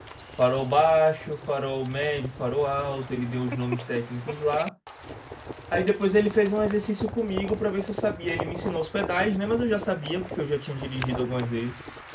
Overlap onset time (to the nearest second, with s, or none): none